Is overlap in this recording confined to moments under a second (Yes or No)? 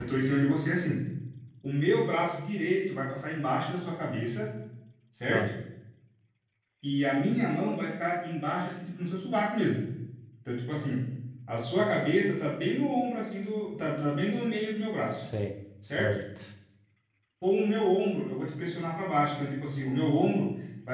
Yes